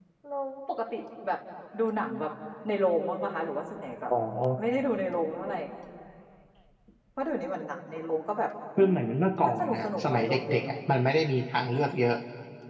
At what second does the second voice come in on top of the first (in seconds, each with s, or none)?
8.8 s